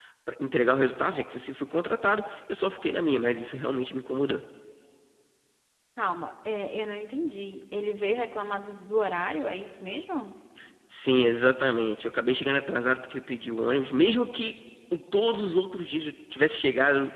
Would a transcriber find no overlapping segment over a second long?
Yes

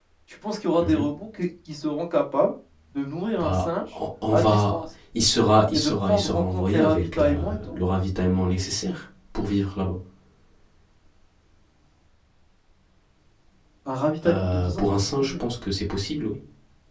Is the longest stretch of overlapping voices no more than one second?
No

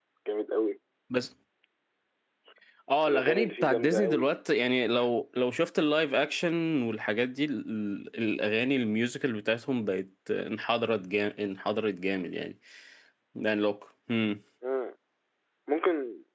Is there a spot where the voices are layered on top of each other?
Yes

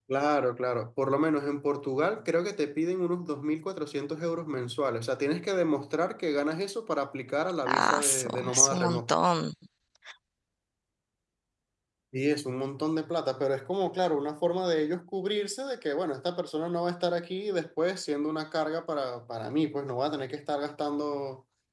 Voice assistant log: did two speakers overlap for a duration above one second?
Yes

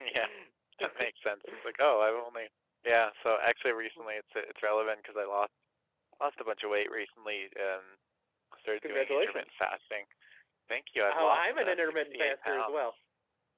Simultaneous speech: Yes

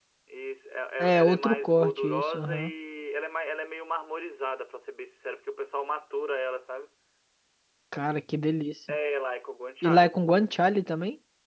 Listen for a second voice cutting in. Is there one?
Yes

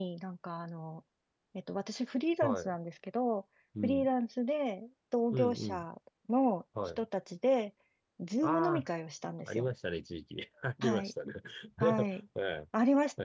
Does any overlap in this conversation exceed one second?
No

